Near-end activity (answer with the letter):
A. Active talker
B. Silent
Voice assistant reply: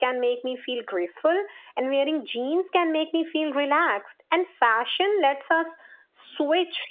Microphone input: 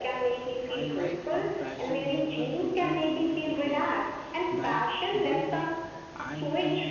A